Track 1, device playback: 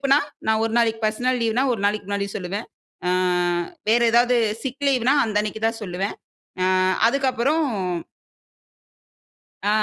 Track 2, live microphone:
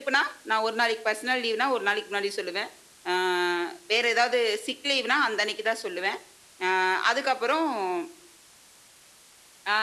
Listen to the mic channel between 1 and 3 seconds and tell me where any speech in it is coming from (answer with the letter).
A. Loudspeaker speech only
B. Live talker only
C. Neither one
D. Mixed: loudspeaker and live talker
A